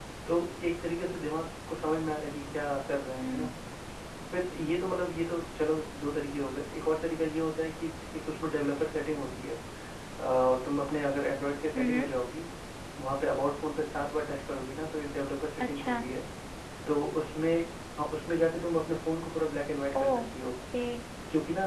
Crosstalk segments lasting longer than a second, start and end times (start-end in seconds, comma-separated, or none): none